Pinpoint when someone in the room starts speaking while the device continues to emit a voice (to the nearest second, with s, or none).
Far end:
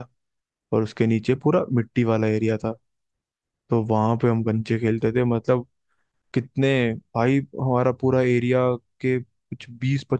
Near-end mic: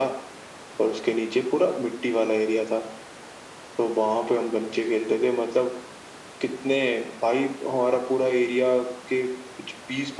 none